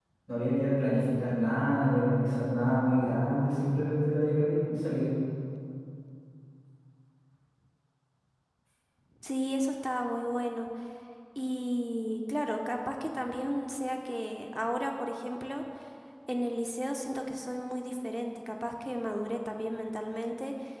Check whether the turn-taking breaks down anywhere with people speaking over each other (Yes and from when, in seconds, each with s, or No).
No